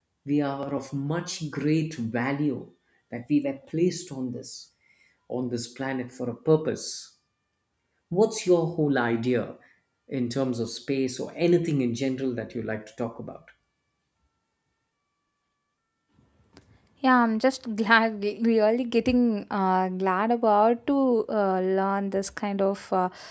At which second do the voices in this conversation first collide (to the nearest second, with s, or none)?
none